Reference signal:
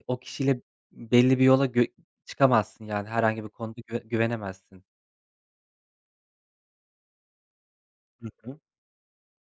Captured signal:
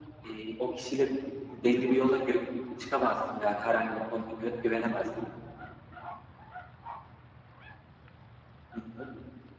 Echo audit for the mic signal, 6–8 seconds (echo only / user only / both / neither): neither